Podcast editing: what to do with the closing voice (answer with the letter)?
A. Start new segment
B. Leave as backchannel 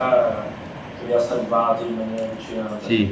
A